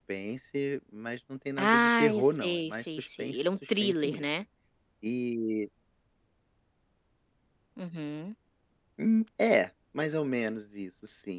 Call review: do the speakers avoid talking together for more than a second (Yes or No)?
No